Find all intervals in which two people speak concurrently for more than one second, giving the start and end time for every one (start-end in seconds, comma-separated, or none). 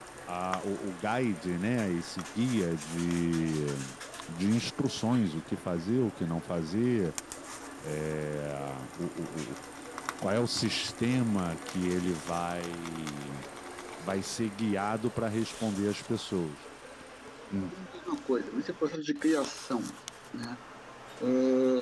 none